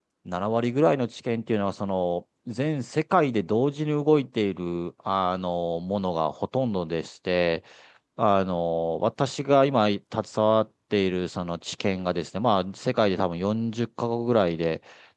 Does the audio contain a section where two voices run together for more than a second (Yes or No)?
No